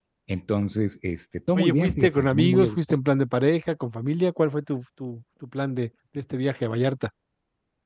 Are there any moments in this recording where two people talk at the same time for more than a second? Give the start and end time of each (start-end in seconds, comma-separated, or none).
1.6-2.8